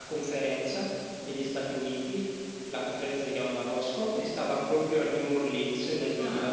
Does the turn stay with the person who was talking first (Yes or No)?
Yes